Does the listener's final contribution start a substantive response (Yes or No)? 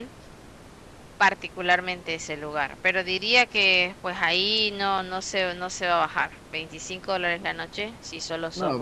Yes